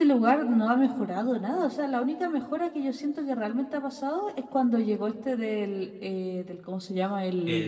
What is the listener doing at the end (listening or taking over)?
listening